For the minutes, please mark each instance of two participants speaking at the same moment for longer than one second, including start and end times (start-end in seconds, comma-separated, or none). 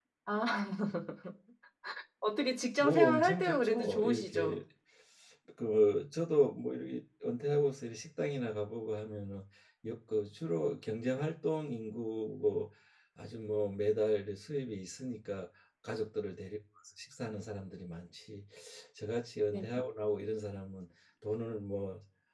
2.8-4.6